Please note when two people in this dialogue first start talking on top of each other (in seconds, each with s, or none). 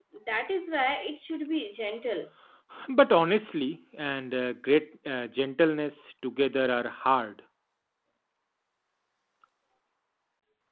none